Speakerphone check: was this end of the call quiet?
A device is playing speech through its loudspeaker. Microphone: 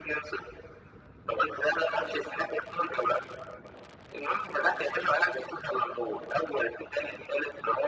Yes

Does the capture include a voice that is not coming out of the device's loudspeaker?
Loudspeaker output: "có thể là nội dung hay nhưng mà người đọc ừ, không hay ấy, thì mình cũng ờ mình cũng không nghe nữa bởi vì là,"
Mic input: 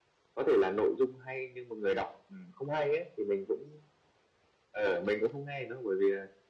No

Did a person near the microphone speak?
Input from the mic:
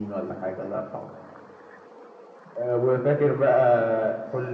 No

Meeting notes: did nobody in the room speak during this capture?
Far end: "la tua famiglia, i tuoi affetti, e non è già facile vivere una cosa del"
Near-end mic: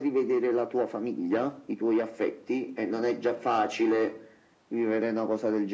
Yes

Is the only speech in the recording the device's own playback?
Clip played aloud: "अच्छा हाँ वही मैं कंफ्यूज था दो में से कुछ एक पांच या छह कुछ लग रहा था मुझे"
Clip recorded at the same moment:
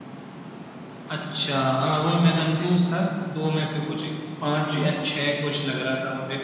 Yes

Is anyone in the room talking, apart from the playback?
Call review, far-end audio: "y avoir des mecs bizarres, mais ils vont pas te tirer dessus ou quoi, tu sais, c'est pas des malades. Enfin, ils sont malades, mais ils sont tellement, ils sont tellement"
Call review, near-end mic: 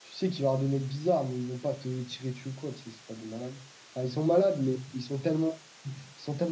No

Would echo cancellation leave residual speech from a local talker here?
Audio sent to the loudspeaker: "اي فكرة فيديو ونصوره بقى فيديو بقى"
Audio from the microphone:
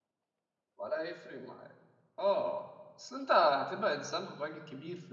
Yes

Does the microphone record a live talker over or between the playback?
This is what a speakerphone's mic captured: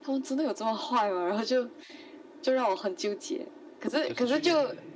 Yes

